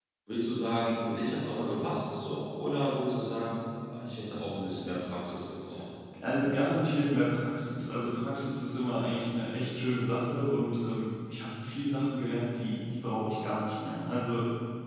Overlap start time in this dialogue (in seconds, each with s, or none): none